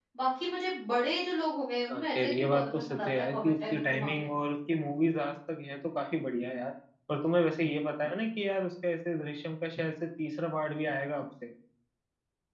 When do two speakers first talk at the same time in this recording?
2 s

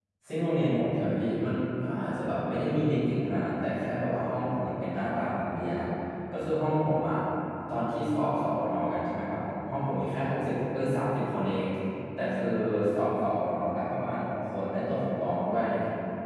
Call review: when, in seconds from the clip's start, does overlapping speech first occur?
none

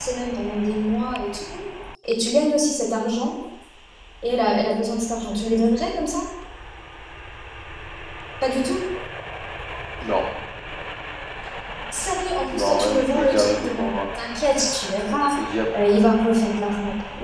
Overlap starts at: 12 s

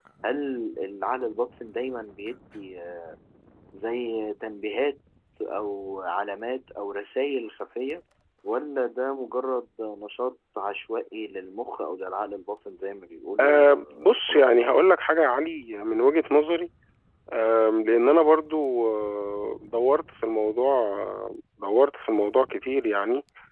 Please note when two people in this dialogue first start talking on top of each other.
13 s

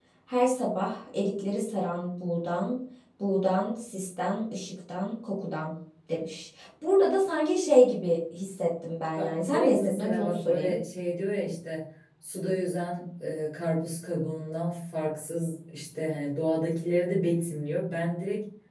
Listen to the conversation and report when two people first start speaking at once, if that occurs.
9 s

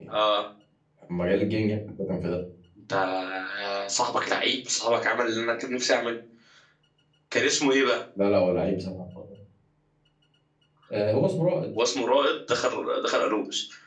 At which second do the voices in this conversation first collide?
none

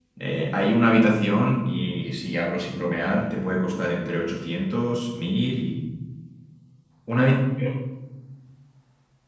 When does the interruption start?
none

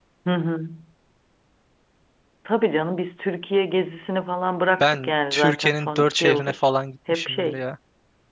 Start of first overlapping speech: 5 s

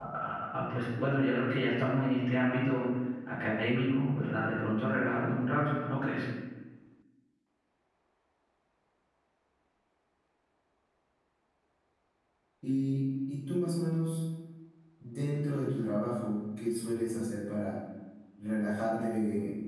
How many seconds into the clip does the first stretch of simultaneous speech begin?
none

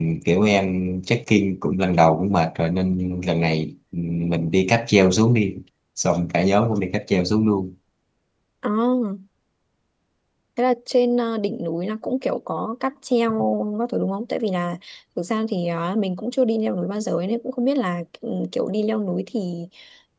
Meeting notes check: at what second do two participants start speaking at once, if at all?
none

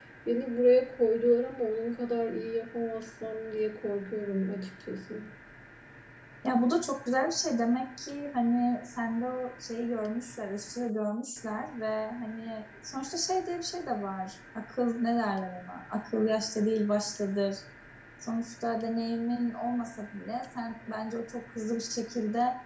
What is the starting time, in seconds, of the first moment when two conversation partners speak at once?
none

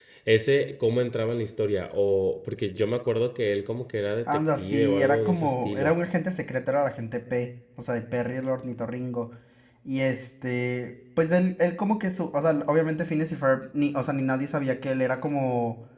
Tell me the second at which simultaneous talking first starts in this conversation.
4 s

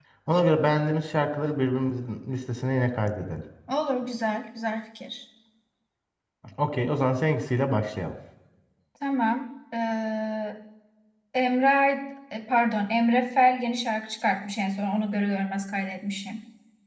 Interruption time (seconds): none

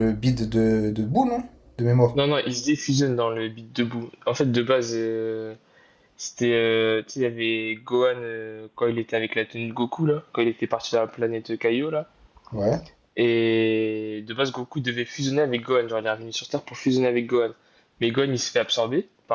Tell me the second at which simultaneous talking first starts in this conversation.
none

